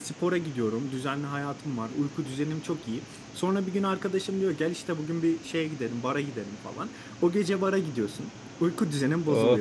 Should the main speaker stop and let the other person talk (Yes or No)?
No